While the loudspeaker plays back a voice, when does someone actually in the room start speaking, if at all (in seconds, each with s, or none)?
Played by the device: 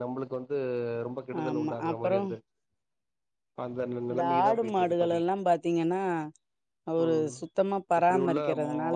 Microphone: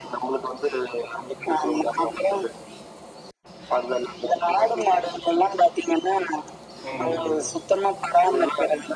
6.9 s